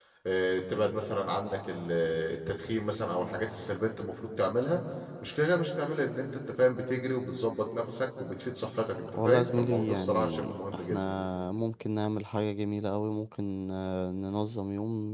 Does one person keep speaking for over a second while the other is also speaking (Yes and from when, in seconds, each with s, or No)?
Yes, from 9.1 s